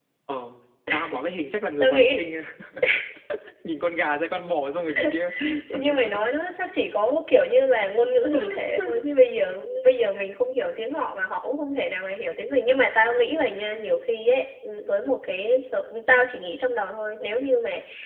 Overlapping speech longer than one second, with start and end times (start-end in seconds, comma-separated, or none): none